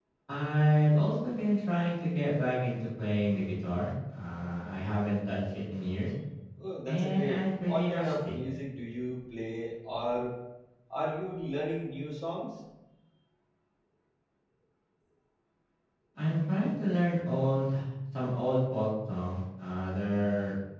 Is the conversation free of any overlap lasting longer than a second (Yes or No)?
No